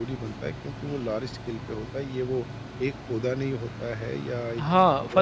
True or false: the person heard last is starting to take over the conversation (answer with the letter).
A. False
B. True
B